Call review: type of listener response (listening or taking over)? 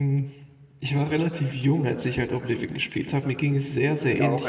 listening